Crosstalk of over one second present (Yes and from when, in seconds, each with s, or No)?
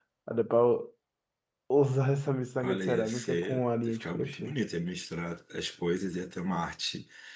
Yes, from 2.6 s